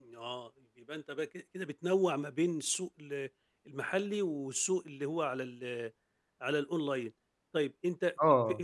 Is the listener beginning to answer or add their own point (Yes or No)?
No